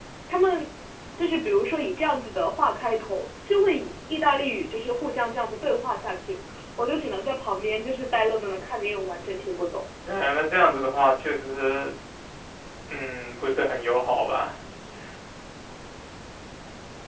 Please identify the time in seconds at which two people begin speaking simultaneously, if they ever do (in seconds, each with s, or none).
none